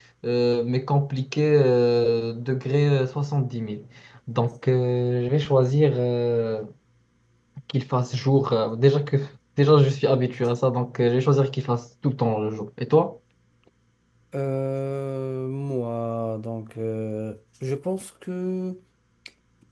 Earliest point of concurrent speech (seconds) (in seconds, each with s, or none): none